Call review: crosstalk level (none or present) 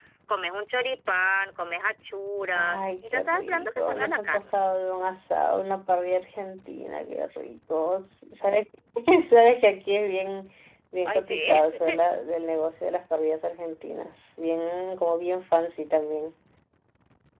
present